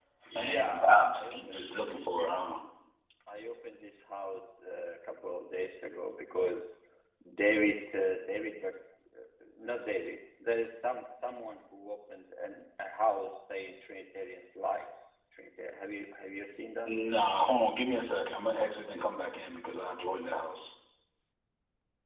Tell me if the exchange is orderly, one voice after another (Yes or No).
No